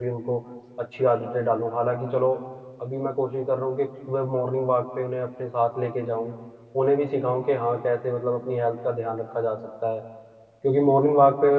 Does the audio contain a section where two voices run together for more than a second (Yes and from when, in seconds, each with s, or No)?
No